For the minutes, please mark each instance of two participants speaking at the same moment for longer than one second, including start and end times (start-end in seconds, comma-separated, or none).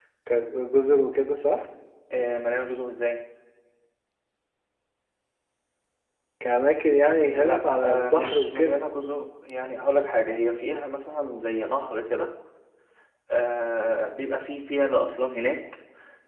7.3-8.8